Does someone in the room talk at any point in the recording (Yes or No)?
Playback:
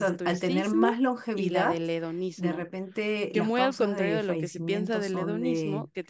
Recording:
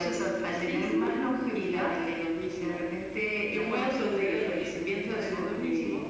Yes